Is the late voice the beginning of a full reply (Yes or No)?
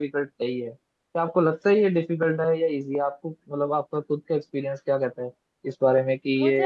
Yes